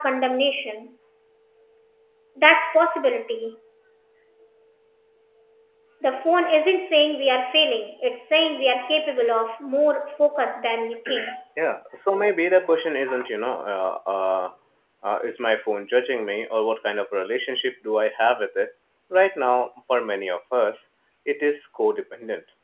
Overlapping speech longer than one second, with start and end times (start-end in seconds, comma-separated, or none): none